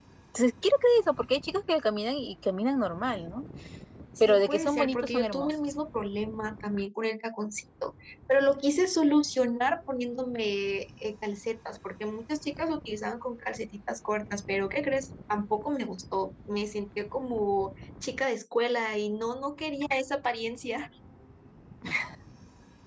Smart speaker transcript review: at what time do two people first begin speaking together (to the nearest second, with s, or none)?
4 s